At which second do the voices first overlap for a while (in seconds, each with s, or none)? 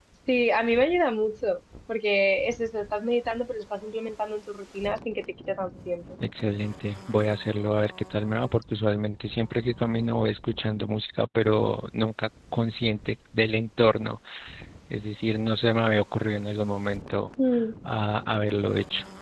none